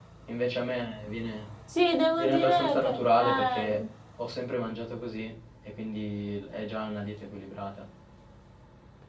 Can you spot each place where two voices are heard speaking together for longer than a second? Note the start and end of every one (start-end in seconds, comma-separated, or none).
2.2-3.8